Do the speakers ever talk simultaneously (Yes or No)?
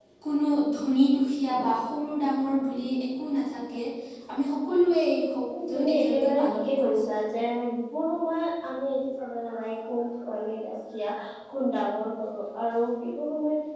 Yes